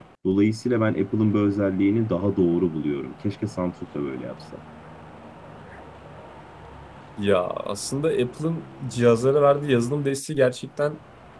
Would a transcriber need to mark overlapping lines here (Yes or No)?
No